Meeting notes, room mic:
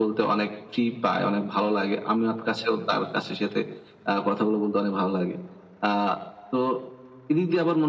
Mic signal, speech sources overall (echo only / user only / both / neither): echo only